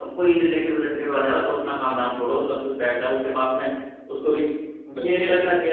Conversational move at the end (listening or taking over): listening